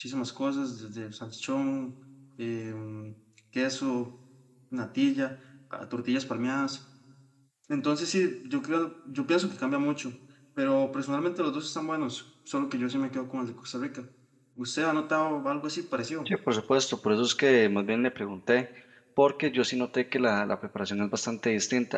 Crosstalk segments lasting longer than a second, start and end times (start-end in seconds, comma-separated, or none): none